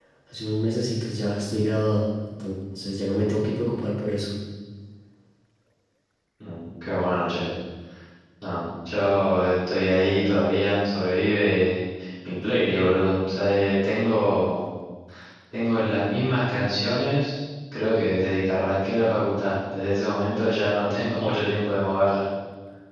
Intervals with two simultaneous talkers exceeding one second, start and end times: none

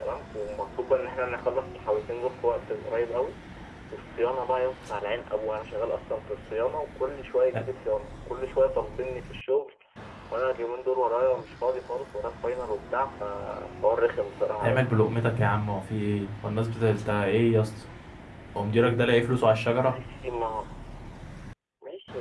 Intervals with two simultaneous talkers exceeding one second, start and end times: none

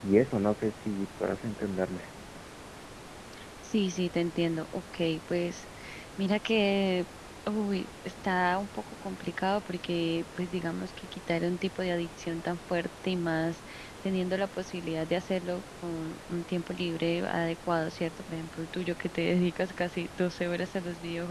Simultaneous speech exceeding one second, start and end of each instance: none

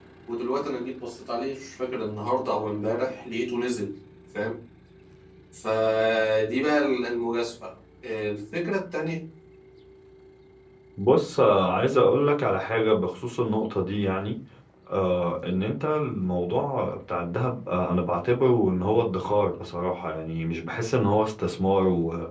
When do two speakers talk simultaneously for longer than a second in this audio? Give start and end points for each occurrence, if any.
none

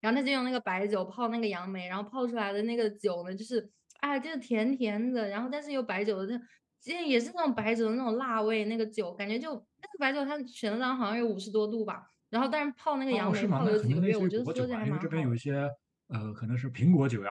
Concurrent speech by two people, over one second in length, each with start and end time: 13.1-15.4

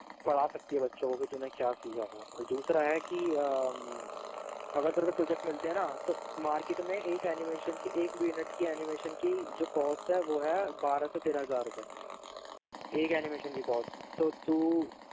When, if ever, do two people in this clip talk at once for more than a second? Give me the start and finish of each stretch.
none

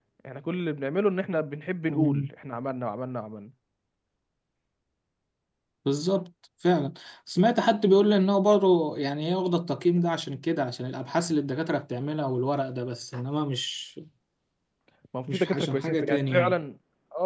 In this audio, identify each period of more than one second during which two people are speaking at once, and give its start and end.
15.3-16.6

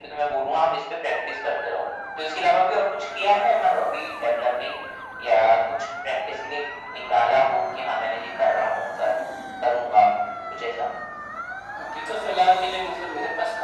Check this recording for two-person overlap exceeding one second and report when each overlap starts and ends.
none

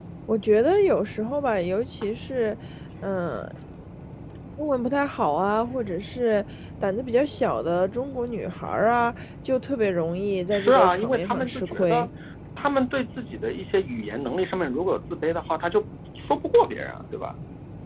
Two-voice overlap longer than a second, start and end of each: 10.5-12.1

